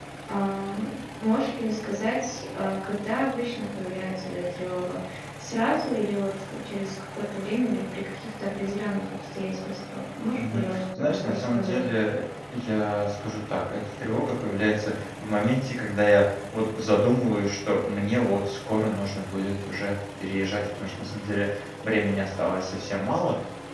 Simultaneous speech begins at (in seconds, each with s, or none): 10.4 s